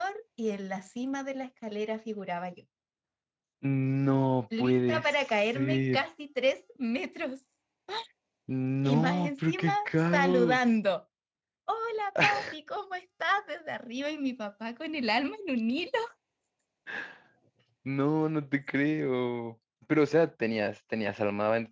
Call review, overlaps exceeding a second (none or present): present